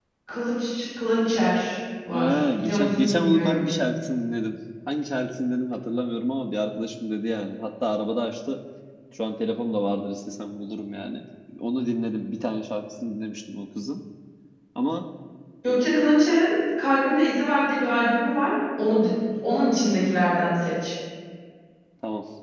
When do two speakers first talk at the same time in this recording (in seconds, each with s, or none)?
2.1 s